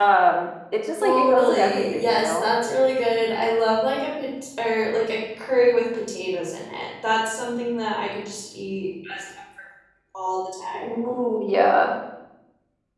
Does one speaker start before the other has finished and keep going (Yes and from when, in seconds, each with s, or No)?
Yes, from 1.0 s